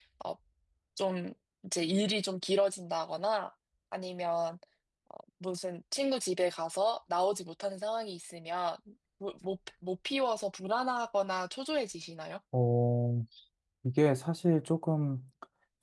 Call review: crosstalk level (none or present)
none